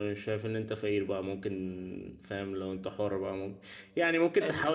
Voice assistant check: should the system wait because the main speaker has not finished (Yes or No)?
Yes